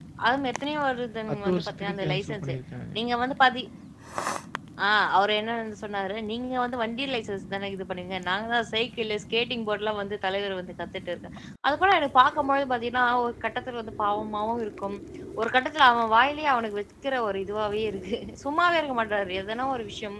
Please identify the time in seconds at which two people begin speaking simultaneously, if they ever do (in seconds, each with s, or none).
1.3 s